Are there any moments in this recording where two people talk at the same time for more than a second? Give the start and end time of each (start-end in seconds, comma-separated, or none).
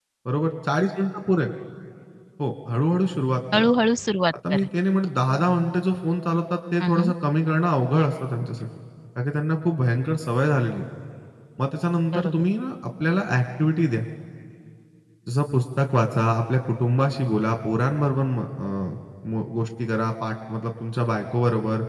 none